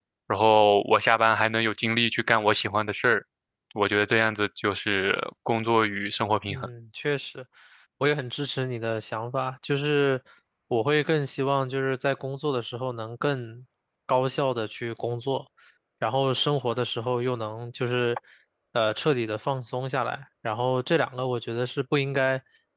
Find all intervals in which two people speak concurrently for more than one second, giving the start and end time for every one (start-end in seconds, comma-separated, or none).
none